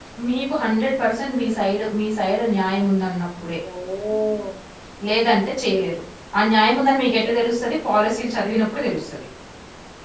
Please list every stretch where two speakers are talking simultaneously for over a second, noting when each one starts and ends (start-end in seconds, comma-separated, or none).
none